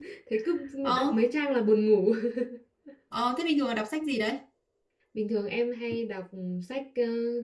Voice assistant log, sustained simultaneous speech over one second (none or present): none